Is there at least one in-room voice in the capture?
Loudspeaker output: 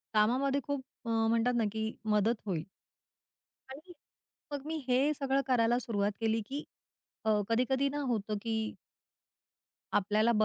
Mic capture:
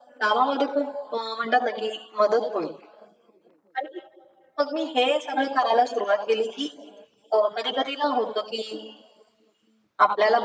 No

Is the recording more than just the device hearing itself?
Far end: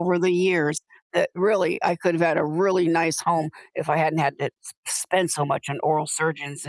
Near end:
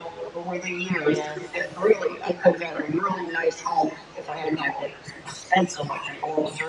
Yes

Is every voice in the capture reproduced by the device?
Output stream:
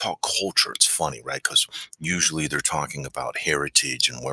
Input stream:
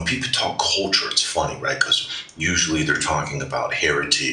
Yes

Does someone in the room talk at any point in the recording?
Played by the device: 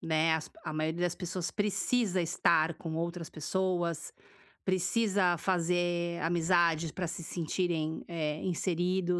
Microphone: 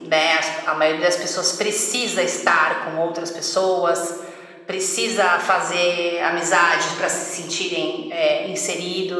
No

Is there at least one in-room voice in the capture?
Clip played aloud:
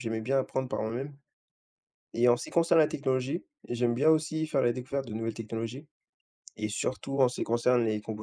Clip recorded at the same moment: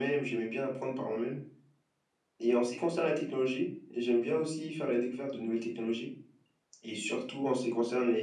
No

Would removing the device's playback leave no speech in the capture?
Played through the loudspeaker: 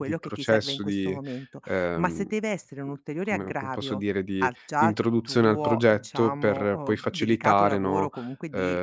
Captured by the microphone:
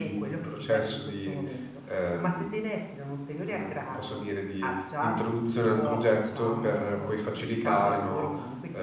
Yes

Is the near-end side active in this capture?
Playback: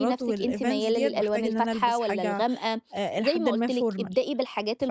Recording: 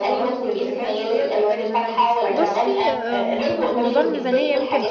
Yes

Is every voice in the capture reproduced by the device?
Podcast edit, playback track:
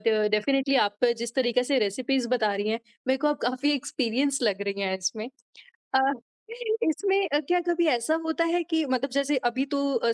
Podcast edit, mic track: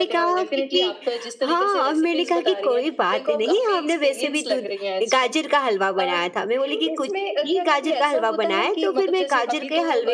No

